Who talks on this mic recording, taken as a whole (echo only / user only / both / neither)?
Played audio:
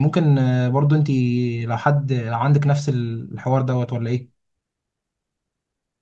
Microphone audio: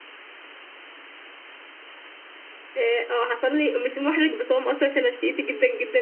user only